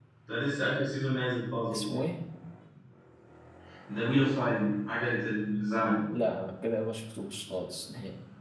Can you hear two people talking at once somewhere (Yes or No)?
No